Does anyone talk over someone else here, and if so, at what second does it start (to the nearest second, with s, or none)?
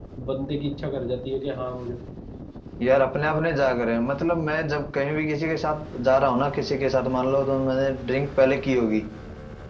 none